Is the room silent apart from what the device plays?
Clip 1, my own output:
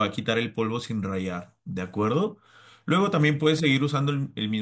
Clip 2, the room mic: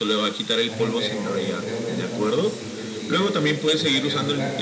No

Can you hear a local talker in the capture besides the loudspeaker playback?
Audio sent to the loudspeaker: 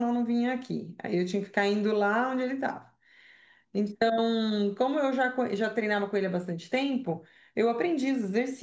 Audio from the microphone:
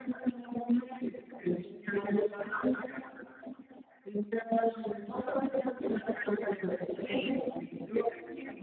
Yes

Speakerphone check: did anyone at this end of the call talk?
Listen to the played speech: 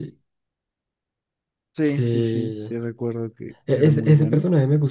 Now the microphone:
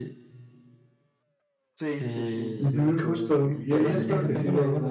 Yes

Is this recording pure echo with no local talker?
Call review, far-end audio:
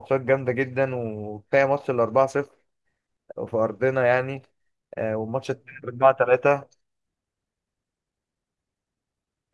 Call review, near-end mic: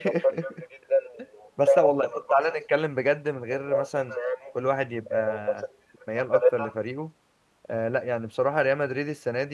No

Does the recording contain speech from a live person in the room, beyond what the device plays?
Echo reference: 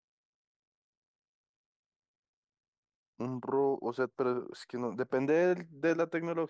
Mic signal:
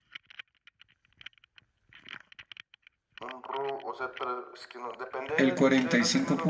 Yes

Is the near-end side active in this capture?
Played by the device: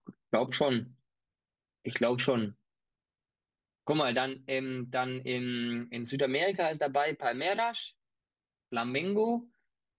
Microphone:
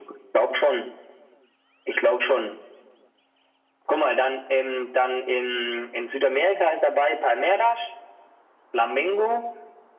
No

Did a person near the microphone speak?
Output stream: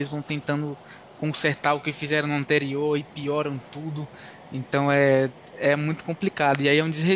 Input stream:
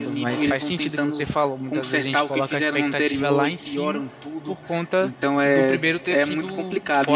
Yes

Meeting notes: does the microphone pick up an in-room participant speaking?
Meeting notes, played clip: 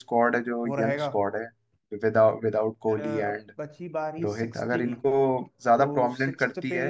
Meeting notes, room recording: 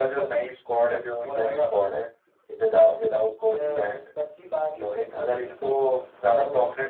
No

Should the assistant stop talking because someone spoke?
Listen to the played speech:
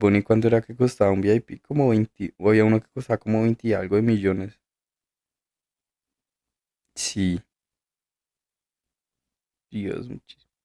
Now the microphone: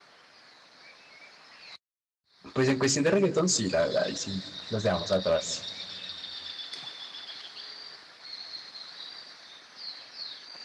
Yes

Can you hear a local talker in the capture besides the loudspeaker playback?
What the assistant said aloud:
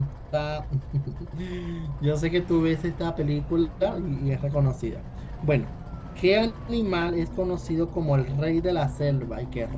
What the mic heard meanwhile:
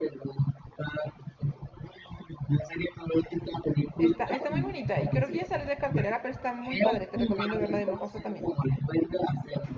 Yes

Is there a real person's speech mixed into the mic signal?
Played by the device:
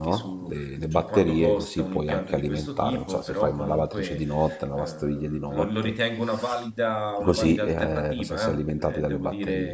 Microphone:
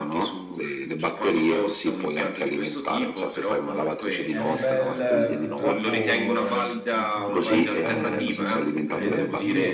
Yes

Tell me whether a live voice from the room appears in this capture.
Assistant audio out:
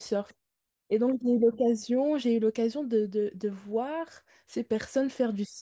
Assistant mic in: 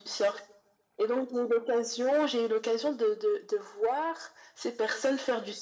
No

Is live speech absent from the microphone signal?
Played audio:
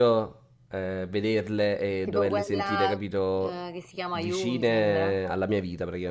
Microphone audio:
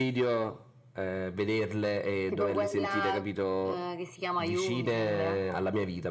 Yes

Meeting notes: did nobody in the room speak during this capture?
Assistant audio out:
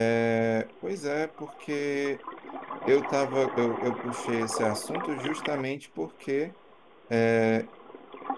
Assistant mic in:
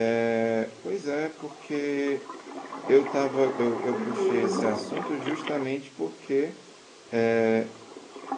No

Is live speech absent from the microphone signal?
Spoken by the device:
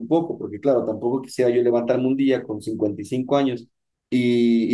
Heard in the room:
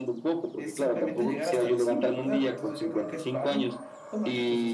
No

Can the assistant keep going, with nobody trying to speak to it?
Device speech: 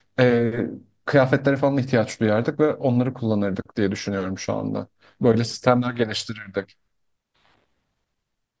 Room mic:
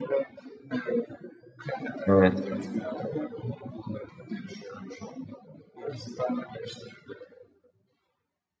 No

